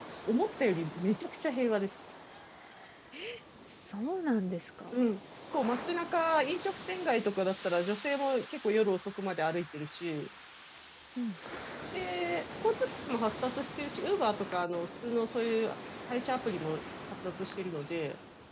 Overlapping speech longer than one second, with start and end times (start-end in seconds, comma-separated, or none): none